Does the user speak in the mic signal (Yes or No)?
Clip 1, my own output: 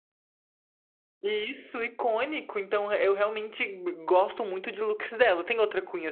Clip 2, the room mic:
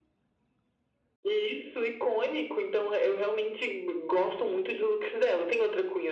No